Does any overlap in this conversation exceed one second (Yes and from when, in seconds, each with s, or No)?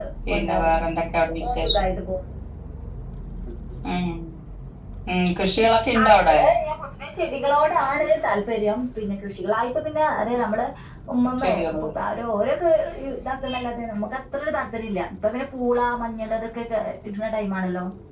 No